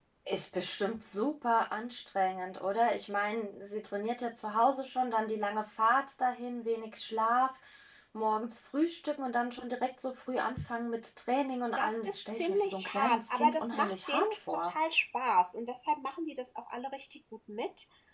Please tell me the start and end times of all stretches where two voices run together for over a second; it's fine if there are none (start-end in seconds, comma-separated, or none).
11.8-14.7